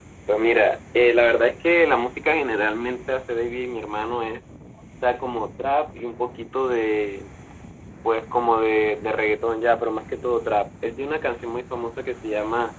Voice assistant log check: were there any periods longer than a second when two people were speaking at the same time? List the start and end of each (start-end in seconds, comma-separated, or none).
none